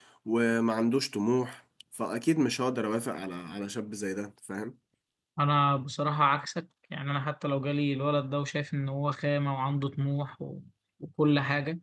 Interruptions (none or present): none